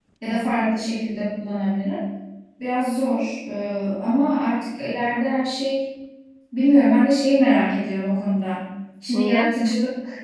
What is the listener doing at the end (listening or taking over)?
listening